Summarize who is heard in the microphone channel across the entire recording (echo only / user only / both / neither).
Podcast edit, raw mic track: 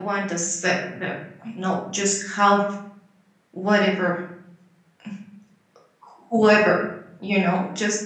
user only